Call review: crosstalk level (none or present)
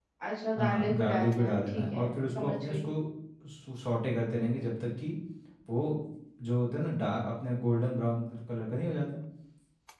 present